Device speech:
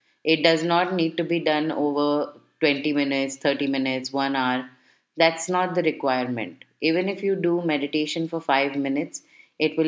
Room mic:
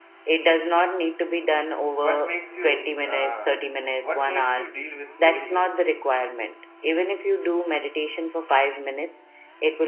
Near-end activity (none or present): present